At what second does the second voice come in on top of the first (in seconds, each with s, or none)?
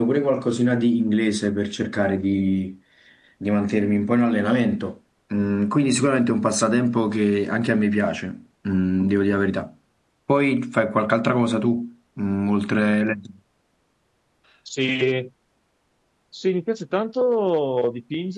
none